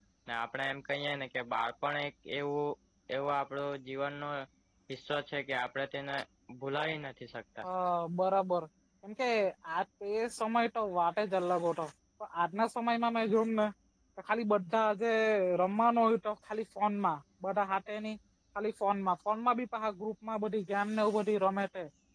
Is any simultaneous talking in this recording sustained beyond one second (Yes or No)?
No